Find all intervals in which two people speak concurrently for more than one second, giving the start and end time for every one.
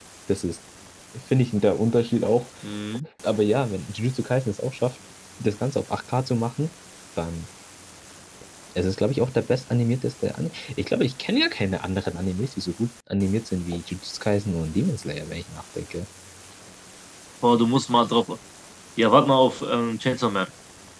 none

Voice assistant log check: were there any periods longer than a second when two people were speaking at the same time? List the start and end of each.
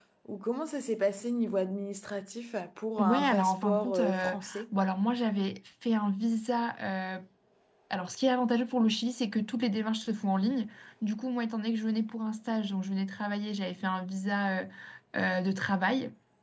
3.0-4.6

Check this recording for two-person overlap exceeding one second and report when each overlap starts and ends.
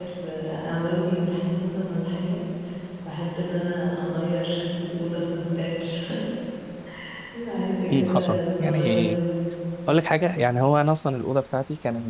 7.9-9.2

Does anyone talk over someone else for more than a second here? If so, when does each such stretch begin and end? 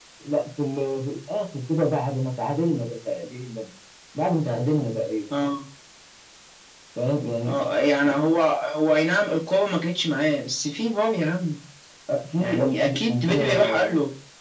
12.4-13.8

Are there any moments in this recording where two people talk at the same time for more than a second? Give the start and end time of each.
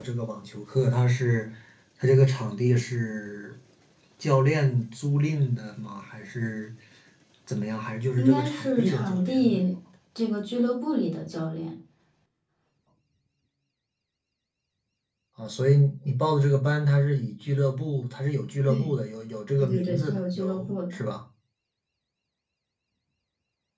8.2-9.6, 19.6-21.0

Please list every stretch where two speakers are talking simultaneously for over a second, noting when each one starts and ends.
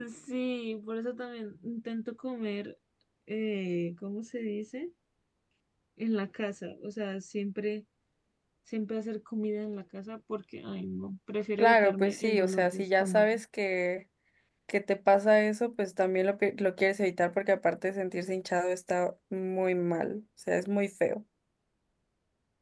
11.6-13.4

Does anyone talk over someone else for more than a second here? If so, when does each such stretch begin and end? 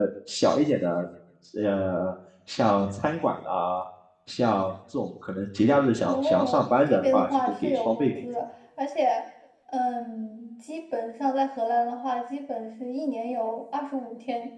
6.0-8.1

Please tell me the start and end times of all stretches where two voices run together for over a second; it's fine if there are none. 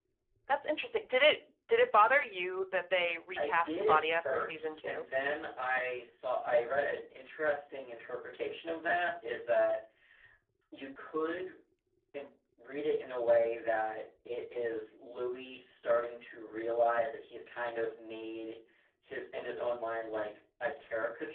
3.4-5.0

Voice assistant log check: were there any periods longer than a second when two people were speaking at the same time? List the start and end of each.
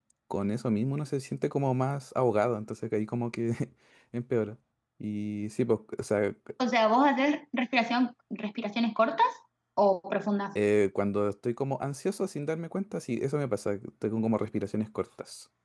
none

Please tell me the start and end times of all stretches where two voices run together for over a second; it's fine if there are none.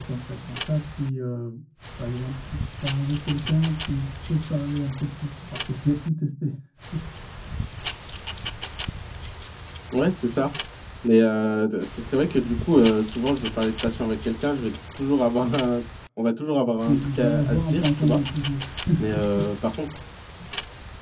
16.9-18.2

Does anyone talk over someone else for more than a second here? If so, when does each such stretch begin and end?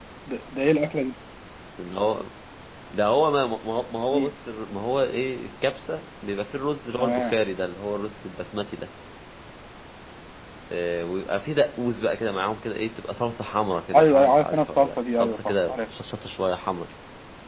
13.9-15.8

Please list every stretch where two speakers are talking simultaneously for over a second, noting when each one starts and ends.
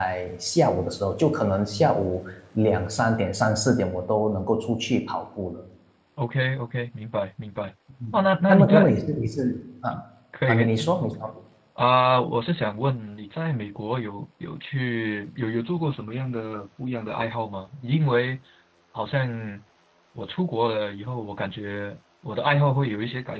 none

